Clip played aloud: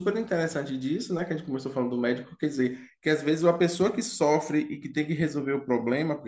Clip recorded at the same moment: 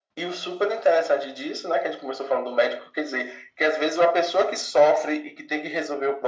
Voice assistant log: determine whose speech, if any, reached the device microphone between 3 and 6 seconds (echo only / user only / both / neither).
echo only